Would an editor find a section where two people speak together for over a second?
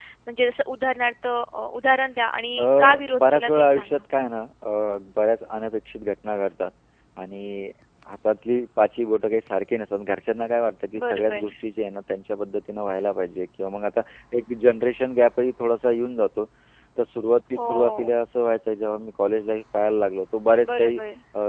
Yes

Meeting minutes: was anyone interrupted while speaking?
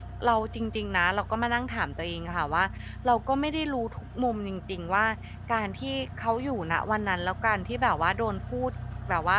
No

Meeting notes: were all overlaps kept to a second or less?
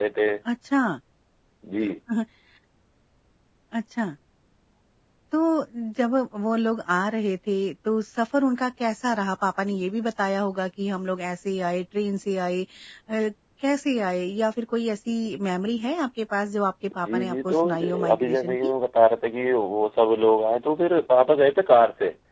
No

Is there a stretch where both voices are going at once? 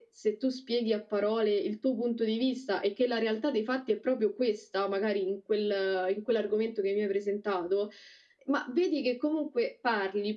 No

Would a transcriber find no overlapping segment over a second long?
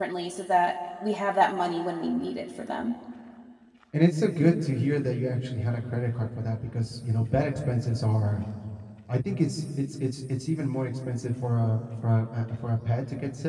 Yes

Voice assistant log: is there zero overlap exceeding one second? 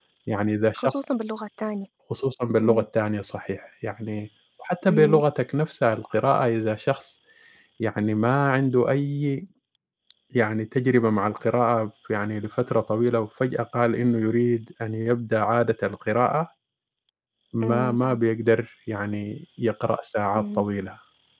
Yes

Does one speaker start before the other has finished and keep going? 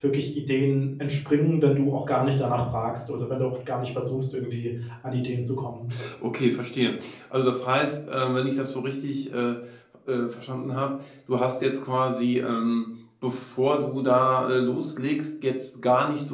No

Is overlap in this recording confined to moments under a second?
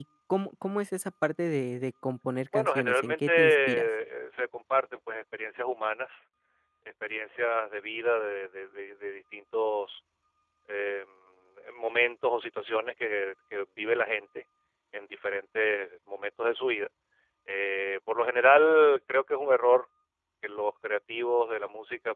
No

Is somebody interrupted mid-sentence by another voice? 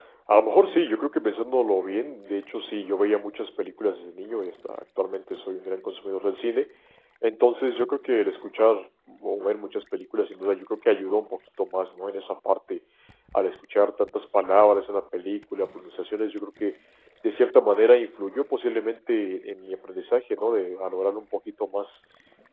No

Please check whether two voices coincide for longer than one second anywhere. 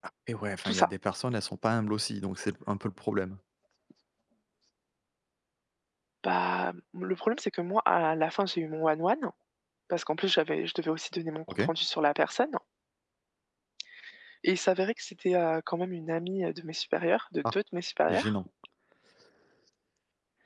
No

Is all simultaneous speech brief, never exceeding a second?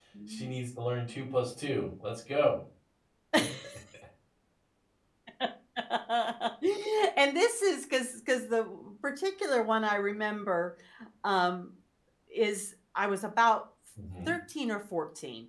Yes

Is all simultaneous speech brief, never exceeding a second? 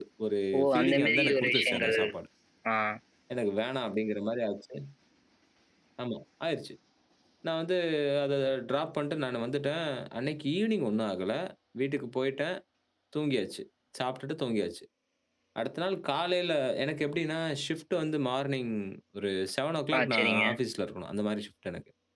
No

